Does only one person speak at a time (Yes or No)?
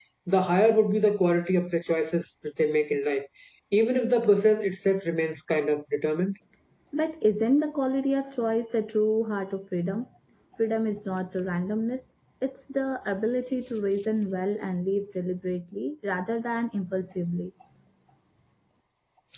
Yes